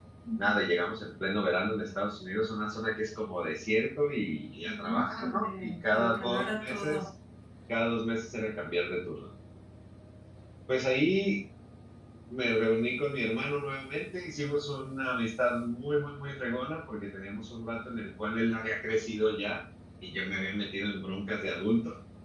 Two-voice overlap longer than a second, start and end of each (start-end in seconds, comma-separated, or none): 4.6-7.0